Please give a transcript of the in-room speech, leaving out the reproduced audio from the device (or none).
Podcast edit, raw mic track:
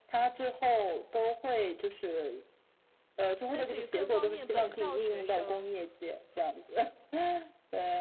类似于更方便本校学生